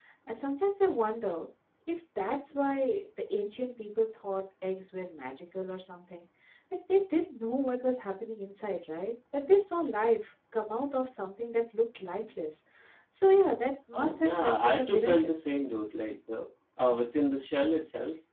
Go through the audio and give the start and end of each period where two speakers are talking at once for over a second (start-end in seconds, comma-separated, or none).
13.9-15.3